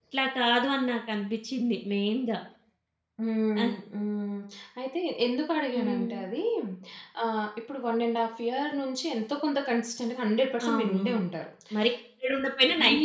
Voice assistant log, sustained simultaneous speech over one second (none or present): none